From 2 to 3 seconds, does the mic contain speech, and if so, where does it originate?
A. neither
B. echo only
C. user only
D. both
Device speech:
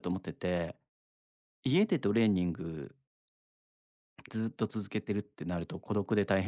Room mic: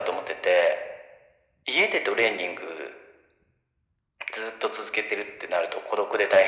B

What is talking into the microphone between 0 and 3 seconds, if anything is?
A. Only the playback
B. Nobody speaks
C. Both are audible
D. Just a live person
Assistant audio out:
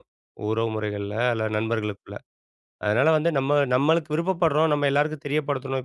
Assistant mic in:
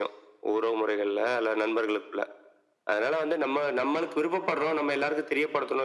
A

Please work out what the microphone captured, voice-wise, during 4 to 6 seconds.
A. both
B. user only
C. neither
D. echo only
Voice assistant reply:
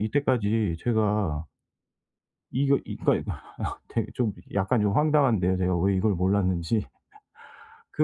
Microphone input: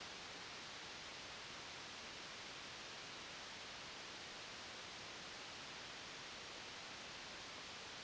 C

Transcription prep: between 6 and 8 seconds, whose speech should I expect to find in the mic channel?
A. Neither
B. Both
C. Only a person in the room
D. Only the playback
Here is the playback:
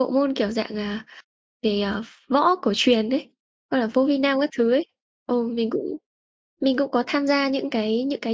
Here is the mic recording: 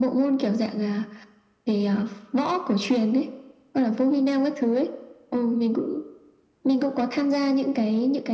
D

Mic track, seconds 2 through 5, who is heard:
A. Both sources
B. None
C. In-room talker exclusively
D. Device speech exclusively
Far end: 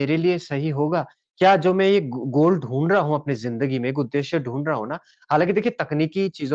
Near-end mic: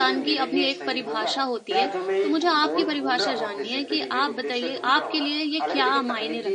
A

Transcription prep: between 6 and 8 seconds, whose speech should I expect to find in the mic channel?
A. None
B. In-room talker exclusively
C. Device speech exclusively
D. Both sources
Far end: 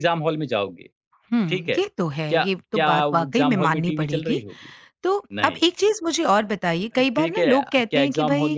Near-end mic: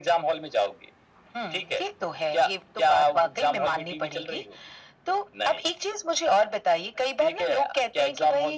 C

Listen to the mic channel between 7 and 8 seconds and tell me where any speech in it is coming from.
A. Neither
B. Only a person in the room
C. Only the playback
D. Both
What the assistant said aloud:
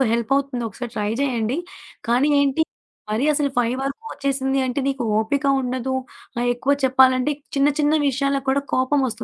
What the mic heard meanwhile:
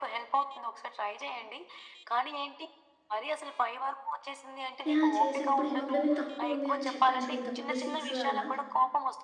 D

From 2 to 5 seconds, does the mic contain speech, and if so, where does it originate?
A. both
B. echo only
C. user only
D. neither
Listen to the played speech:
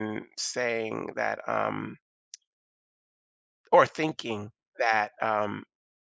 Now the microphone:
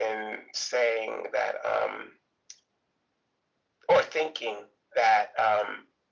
B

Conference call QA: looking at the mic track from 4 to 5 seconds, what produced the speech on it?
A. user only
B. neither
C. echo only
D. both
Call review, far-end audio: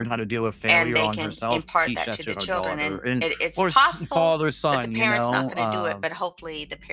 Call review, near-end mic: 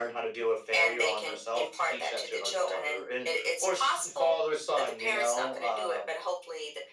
C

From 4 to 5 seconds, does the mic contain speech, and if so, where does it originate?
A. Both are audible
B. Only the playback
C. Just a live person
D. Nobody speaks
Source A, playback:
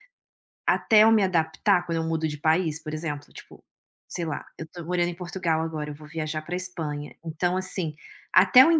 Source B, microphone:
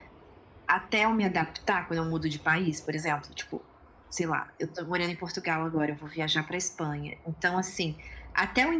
B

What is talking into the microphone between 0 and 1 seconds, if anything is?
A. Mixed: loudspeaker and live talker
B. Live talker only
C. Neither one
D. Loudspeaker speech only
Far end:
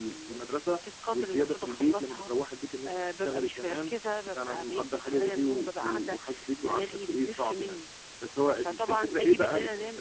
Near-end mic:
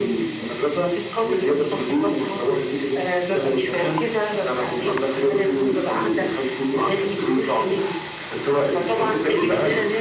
D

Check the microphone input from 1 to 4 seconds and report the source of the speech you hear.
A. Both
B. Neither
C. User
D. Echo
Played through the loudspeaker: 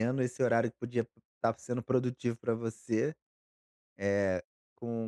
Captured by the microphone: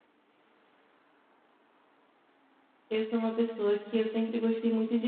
C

